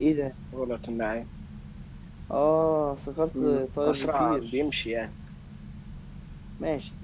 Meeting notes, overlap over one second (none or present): present